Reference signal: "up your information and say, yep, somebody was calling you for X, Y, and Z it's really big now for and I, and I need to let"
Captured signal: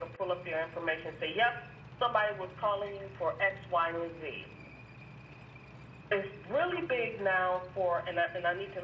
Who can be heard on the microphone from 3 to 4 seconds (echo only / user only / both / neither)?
echo only